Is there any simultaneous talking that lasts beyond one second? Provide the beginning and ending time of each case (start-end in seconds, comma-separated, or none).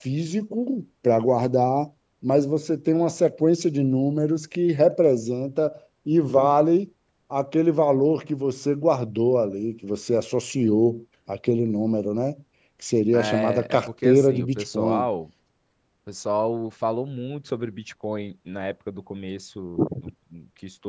13.1-15.1